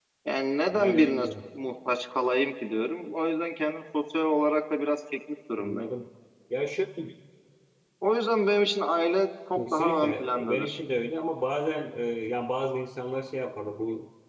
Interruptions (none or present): present